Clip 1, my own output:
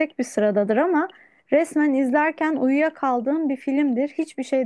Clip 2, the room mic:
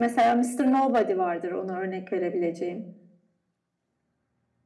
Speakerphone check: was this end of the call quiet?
No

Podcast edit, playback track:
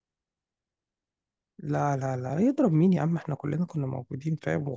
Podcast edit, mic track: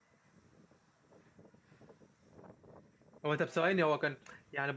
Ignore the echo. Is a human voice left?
Yes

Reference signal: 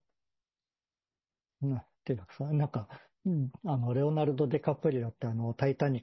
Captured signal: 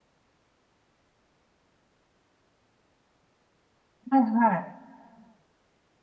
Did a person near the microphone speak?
Yes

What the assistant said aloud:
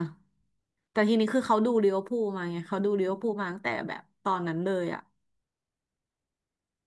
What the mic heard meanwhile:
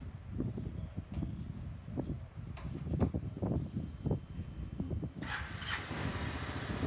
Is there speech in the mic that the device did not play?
No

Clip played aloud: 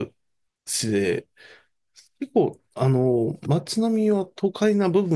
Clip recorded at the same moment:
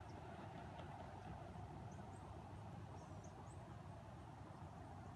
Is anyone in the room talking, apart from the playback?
No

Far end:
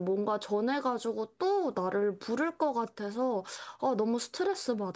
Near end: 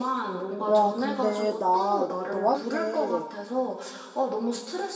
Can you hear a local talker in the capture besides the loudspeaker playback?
Yes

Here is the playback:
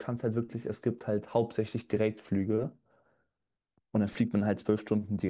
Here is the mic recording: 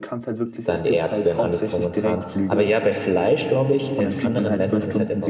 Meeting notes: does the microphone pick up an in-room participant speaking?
Yes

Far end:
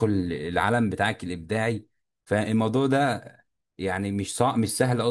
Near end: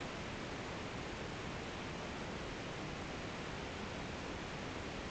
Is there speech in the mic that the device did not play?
No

